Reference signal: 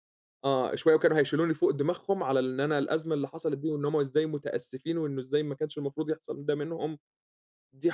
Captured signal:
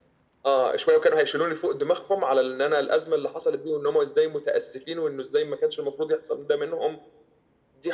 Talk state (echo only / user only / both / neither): echo only